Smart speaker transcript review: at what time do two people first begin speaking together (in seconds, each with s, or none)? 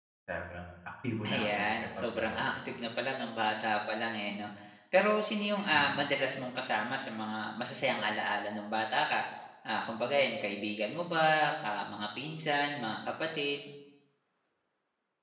1.3 s